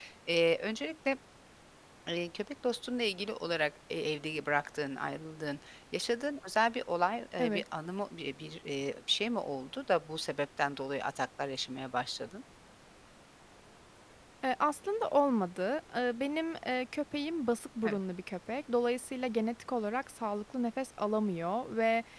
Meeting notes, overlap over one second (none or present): none